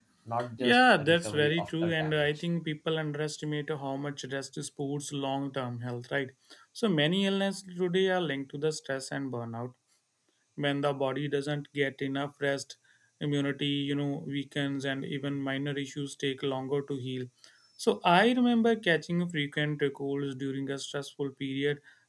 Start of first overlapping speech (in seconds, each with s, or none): 0.6 s